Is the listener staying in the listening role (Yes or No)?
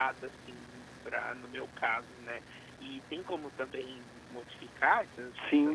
No